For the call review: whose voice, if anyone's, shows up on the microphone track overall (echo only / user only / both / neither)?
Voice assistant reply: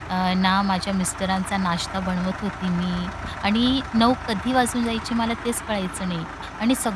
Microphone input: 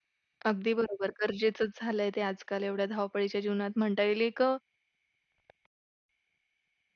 user only